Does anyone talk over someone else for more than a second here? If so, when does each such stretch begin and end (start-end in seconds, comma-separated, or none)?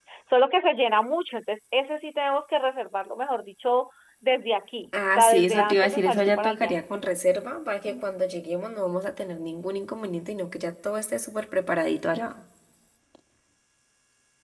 5.2-6.8